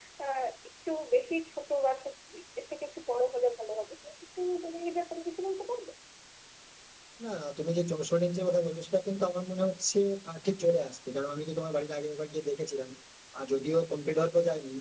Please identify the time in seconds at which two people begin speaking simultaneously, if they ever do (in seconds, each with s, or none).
none